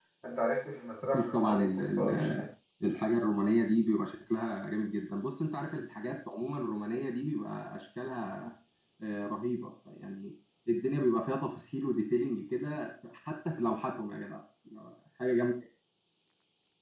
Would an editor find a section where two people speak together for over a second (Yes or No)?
Yes